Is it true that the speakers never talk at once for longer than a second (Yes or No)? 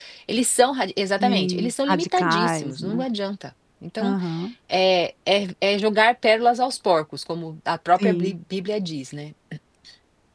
No